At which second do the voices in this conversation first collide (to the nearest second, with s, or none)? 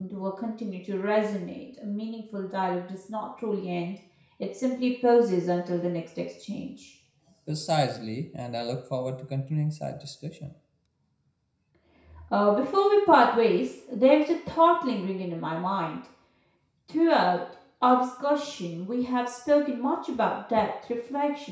none